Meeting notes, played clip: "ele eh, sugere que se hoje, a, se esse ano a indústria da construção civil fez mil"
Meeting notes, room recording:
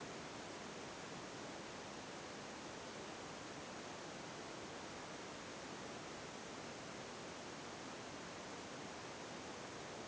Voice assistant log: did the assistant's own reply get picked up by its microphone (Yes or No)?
No